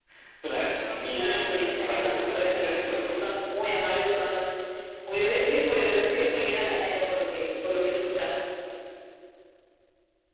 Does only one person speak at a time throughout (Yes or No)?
No